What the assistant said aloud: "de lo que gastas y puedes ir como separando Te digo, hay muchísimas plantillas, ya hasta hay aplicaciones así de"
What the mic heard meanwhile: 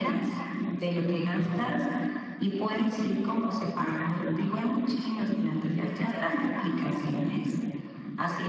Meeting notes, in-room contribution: present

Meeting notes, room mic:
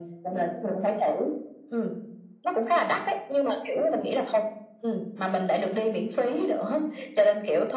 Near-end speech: none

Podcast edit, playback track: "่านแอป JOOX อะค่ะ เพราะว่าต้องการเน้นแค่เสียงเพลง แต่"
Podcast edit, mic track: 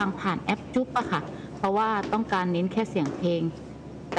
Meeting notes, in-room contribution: none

